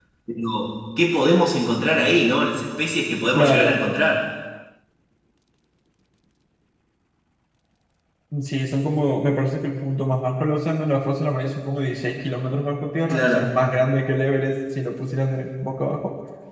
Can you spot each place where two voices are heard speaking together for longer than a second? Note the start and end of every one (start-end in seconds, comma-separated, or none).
none